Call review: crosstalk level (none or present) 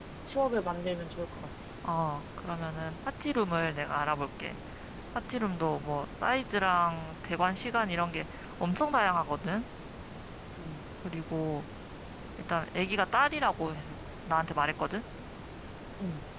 none